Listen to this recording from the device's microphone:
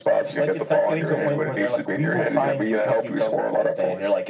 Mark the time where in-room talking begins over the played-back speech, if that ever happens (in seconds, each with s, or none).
none